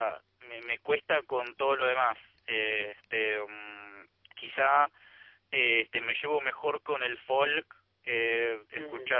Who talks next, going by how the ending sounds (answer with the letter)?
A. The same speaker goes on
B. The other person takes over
B